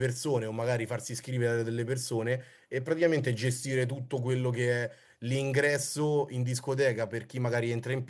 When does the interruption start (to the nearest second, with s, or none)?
none